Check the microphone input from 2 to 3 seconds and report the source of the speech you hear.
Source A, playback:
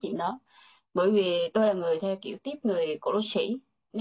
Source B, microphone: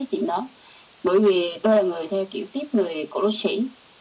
echo only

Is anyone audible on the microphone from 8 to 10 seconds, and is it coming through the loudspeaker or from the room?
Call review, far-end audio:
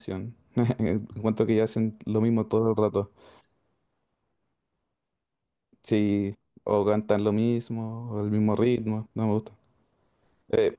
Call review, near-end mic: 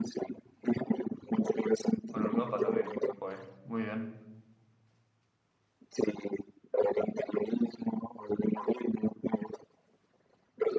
echo only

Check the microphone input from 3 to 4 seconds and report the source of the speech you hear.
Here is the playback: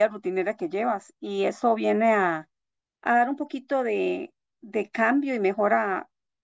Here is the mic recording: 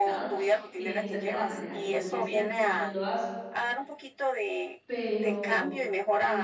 both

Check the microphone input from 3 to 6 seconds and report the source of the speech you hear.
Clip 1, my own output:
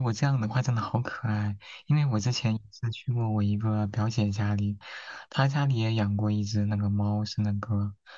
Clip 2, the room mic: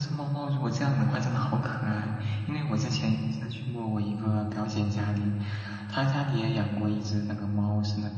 echo only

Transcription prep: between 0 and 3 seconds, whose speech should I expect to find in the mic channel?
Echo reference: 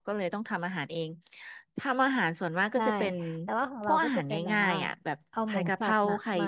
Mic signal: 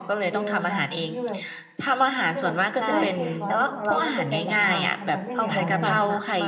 both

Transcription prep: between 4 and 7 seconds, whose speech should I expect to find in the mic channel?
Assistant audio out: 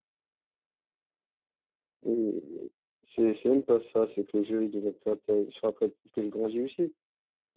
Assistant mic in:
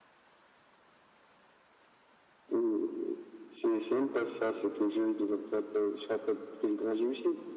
echo only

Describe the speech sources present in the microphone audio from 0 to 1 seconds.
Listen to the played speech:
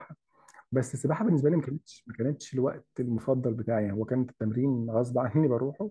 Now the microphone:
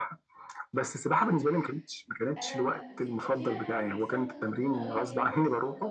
echo only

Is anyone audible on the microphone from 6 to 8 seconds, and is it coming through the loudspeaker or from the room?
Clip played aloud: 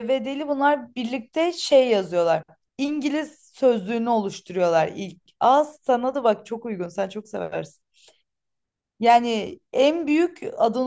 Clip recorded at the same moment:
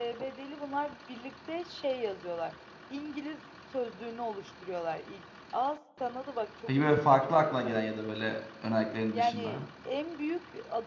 both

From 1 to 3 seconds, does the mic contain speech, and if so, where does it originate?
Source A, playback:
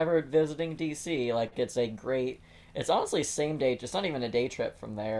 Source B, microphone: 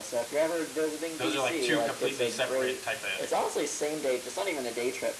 both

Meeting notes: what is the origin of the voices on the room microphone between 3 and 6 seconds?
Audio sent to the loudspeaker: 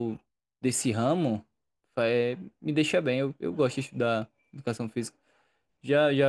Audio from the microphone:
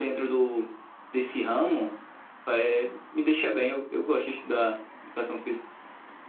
echo only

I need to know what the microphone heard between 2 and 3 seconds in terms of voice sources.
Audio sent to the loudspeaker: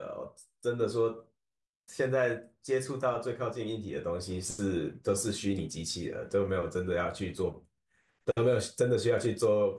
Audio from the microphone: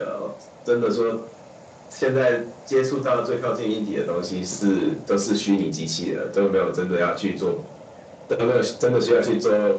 echo only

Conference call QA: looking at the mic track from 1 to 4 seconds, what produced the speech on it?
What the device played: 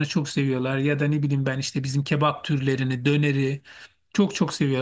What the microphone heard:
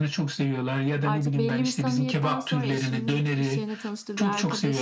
both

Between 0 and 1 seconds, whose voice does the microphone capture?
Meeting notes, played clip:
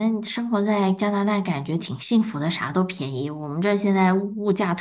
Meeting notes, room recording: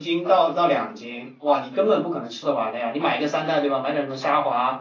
user only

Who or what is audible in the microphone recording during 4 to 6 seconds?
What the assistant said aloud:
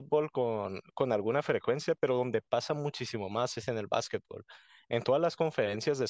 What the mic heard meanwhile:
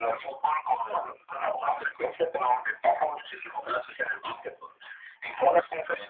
echo only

